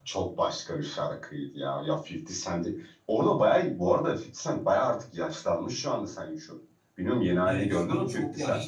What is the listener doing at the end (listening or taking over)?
taking over